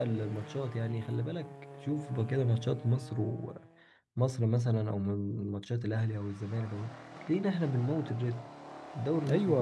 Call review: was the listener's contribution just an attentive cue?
No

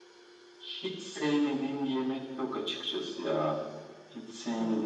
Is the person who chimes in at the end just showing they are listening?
Yes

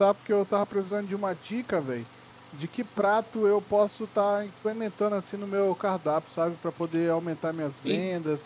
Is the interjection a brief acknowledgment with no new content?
No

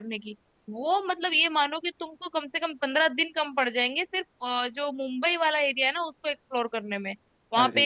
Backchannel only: Yes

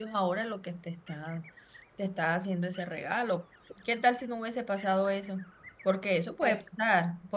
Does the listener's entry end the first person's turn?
No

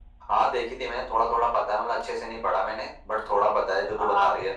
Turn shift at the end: Yes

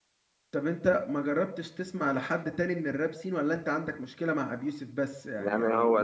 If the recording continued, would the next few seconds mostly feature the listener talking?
Yes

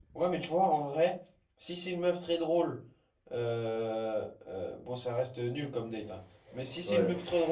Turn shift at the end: No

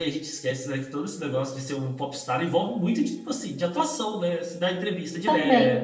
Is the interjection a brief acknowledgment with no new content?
Yes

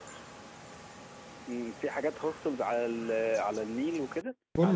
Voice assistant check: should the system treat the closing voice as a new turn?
Yes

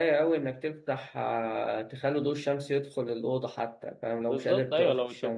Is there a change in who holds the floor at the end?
Yes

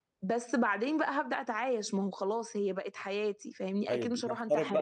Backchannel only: No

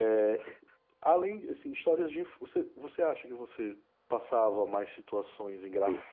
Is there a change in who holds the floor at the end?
No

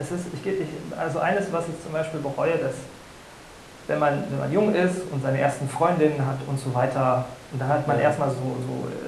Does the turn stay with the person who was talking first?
Yes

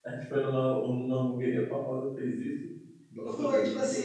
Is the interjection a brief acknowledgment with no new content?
No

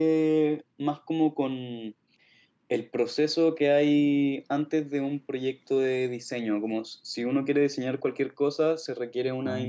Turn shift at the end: No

